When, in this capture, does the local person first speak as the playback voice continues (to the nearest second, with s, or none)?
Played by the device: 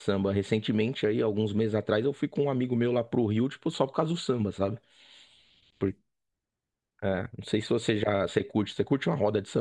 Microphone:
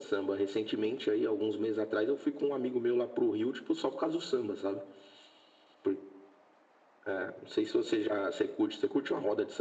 none